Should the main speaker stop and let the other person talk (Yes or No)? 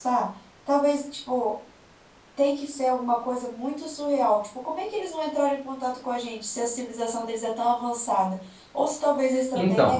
No